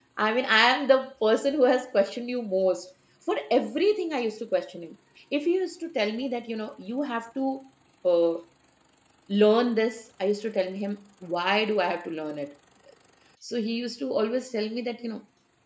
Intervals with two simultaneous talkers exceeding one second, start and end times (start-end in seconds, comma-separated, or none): none